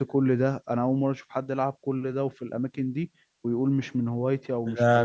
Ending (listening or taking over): taking over